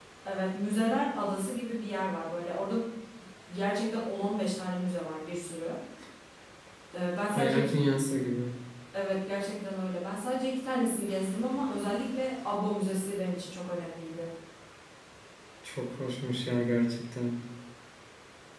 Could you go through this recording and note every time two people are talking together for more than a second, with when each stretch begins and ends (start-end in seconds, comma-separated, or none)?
none